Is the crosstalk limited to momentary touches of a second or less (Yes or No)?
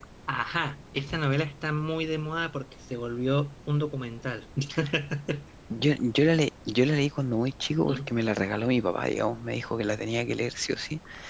Yes